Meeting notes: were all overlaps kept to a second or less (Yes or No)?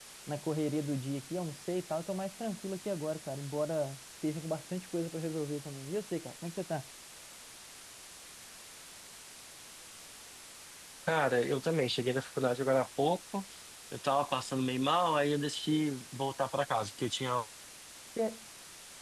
Yes